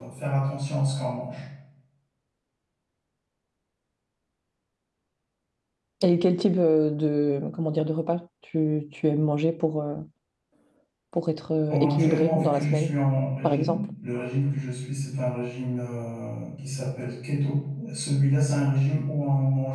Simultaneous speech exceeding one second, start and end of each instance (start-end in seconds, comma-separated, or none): 11.7-12.9